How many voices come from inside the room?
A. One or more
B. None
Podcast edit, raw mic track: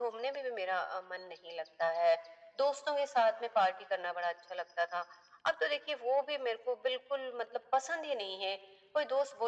B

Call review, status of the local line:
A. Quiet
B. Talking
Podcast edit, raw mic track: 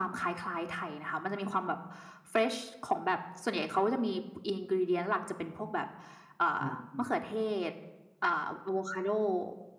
B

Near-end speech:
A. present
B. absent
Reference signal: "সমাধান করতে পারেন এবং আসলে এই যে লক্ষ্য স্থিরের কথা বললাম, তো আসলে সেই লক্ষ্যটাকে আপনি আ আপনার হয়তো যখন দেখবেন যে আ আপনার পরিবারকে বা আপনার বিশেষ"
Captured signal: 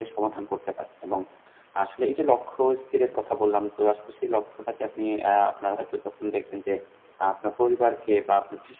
B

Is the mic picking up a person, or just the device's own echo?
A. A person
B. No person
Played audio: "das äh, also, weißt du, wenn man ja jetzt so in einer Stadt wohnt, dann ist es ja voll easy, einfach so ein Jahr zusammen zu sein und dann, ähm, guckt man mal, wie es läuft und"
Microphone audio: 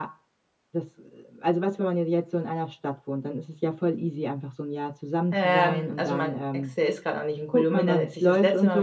A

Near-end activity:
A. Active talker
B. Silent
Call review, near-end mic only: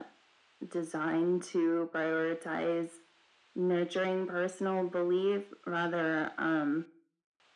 B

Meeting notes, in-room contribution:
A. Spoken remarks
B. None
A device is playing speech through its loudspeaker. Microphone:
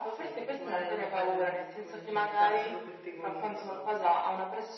A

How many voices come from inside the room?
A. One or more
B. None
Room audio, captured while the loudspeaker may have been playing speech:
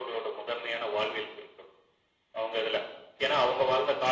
B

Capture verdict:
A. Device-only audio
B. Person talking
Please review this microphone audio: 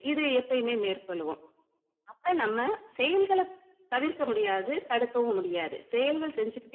A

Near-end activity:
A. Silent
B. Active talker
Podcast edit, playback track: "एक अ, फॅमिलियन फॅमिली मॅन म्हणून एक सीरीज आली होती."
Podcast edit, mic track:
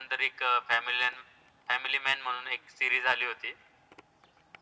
A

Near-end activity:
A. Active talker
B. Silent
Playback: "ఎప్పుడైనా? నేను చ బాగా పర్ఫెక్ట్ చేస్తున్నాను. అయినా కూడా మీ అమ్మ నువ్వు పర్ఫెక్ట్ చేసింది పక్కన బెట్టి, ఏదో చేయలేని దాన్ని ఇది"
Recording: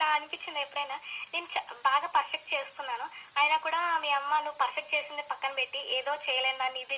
B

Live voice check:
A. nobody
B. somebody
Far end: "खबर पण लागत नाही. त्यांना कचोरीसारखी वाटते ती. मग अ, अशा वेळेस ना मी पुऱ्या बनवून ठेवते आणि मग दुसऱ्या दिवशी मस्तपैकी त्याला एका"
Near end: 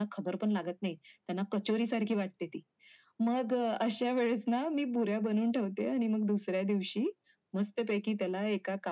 A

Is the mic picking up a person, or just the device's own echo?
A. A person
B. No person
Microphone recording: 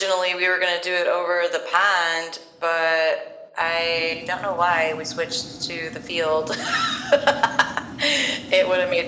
B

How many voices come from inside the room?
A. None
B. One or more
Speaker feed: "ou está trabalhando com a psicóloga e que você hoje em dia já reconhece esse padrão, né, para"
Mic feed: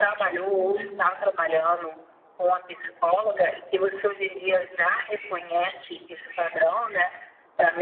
B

